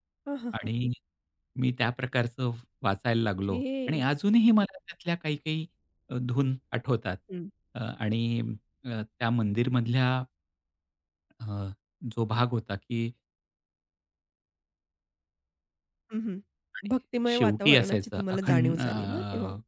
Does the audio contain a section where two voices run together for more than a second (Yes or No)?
Yes